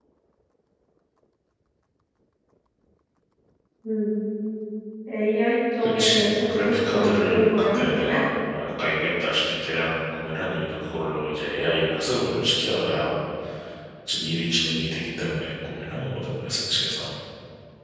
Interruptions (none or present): present